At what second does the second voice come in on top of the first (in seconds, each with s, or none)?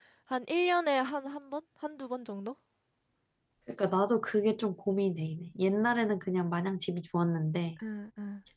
none